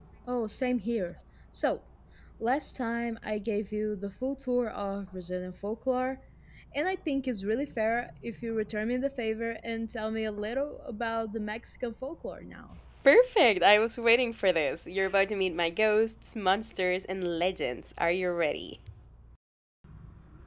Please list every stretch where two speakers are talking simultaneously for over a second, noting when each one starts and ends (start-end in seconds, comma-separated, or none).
none